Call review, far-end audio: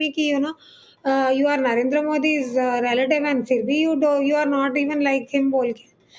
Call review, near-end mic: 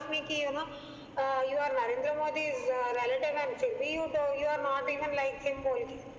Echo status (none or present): present